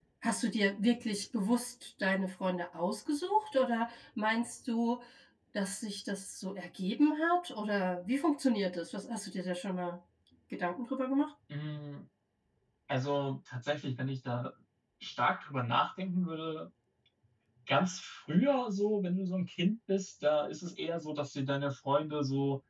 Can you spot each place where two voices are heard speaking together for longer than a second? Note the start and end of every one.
none

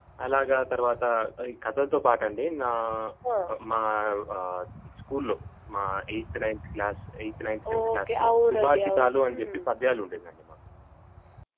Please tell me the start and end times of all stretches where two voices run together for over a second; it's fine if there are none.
7.7-9.6

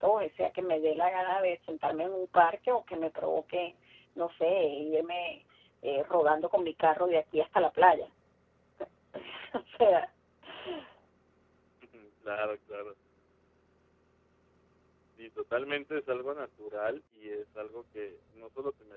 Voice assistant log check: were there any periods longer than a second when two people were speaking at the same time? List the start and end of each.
none

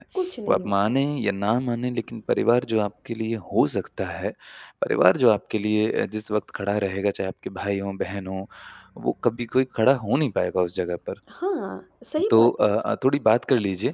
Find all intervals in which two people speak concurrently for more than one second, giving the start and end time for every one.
none

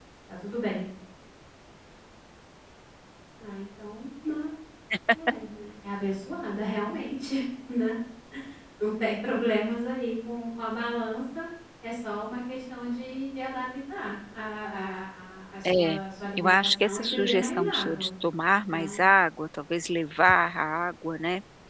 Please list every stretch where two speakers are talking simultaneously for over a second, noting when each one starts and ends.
16.4-18.1

